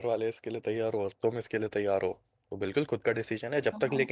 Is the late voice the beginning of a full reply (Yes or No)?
No